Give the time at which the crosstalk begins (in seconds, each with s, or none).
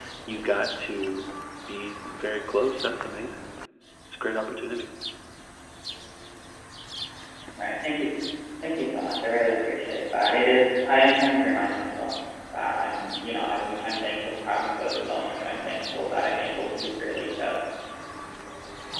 none